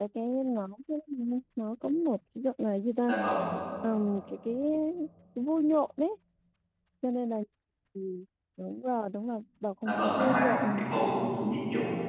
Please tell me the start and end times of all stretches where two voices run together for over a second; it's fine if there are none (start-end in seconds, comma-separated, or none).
9.8-11.3